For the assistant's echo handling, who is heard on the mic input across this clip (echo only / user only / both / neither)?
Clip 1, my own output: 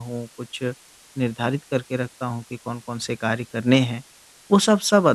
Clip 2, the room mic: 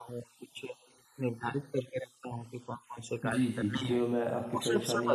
both